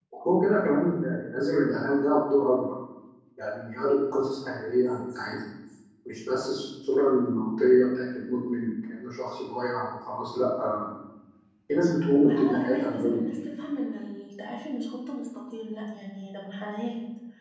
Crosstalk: present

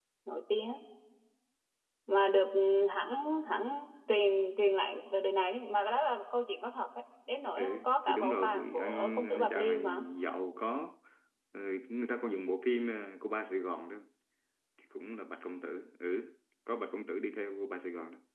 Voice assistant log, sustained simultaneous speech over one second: present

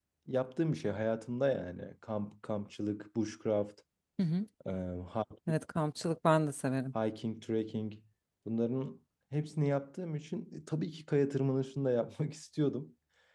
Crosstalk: none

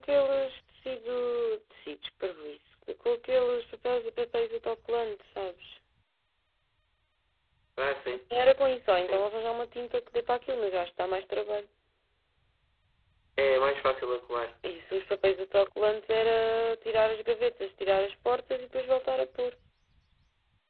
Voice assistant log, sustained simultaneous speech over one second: none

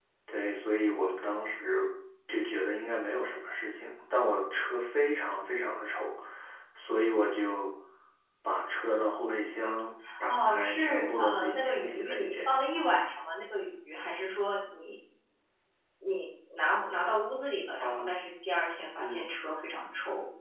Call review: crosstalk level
present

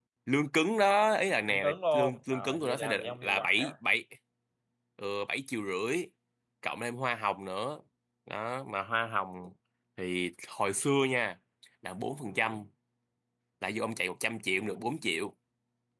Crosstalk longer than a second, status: present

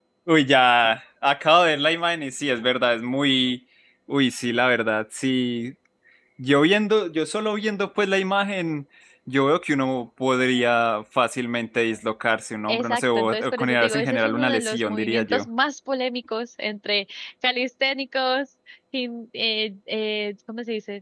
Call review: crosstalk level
present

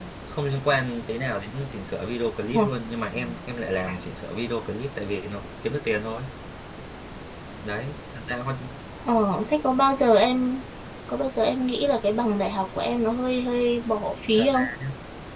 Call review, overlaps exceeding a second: none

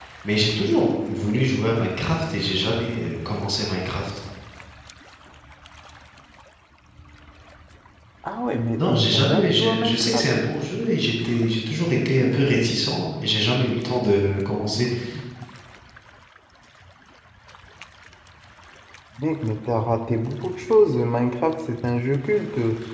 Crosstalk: present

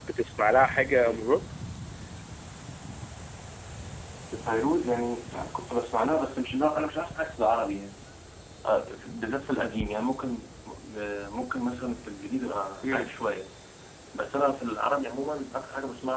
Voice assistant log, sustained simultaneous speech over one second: none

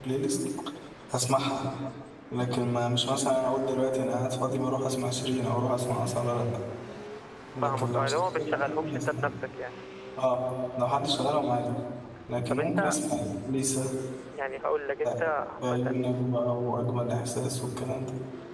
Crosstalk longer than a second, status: present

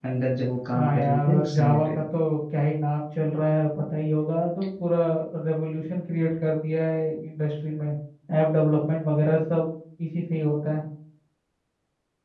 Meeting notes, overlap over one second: present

